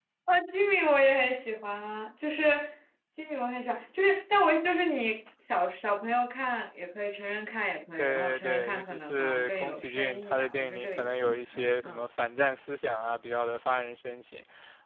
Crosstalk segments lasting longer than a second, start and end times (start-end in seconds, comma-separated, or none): 8.0-11.3